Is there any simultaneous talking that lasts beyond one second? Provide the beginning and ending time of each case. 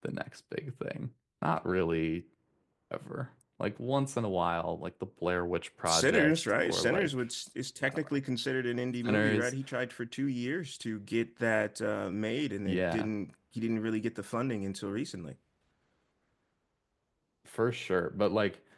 5.9-7.1

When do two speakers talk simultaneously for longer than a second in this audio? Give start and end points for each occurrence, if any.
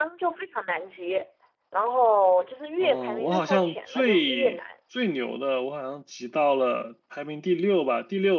2.8-4.6

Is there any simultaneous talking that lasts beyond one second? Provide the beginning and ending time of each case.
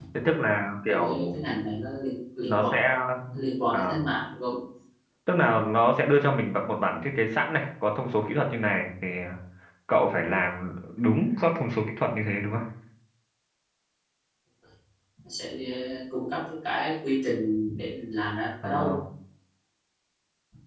none

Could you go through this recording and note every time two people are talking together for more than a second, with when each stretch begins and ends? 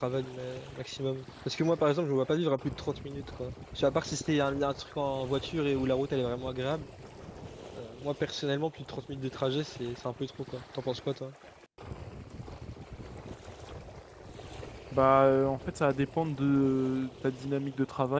none

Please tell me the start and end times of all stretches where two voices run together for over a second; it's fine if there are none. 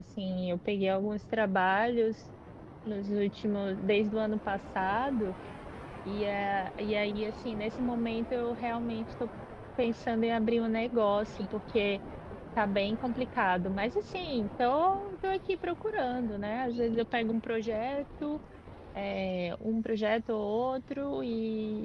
none

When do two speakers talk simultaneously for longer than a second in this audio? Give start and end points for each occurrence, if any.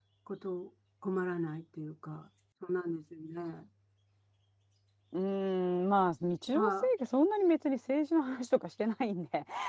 none

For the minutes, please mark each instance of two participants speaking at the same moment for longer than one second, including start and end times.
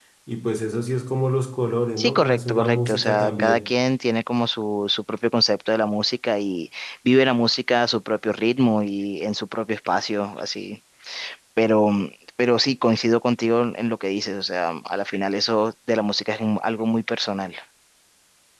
2.0-3.6

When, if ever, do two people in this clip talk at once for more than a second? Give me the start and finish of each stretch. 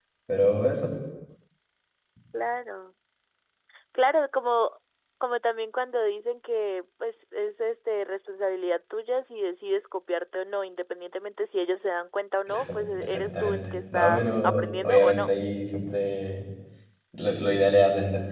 12.5-15.3

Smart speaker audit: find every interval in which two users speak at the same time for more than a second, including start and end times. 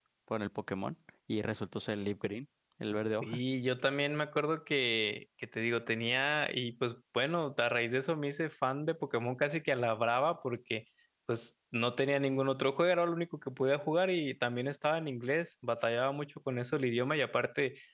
none

